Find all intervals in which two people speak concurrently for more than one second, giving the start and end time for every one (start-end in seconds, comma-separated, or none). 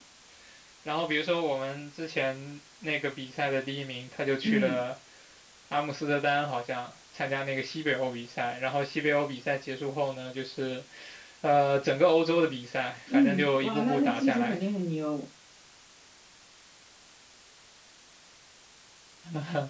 13.1-14.6